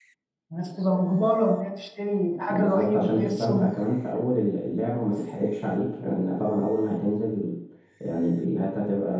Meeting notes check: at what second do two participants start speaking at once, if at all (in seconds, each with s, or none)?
2.5 s